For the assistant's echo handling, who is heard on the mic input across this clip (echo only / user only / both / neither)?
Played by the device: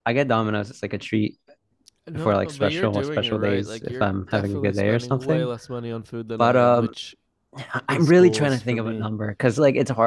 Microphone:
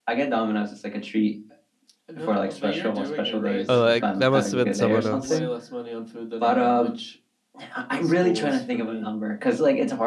both